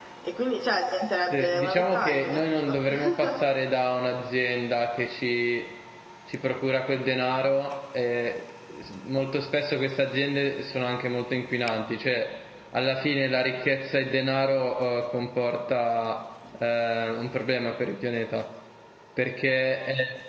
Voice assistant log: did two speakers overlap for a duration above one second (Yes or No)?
Yes